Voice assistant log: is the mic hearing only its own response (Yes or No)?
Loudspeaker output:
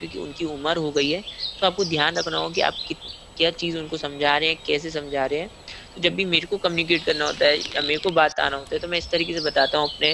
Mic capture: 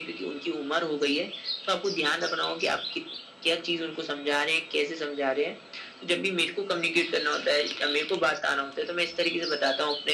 Yes